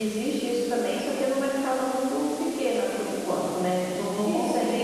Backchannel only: Yes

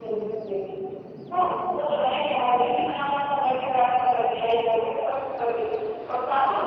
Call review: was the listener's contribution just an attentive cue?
Yes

